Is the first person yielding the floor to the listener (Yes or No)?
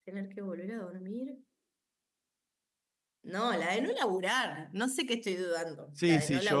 Yes